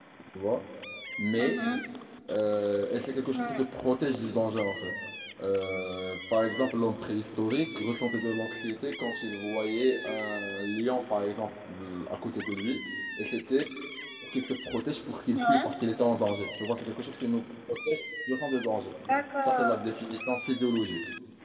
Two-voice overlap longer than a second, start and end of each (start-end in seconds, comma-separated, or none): none